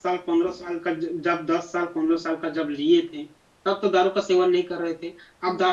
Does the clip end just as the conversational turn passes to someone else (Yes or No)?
No